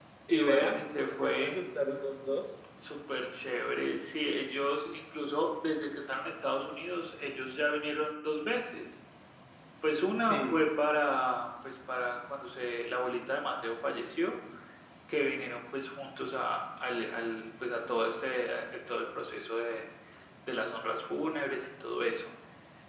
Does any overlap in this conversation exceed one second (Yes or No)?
Yes